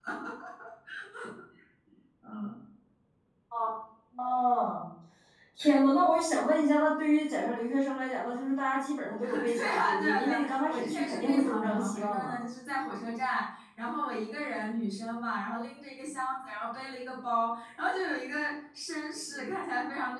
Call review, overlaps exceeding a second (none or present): present